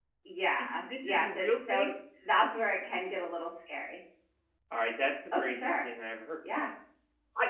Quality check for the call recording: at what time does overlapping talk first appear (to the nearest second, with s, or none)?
1 s